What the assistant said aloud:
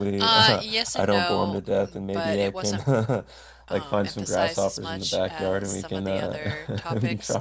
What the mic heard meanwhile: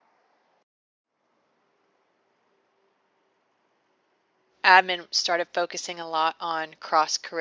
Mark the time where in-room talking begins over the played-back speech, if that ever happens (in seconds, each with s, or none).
4.6 s